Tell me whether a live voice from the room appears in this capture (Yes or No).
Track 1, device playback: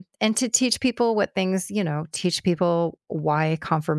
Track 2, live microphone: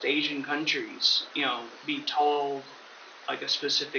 Yes